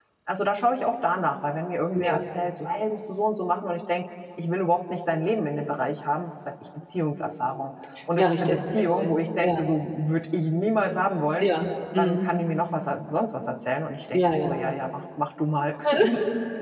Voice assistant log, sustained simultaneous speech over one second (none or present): present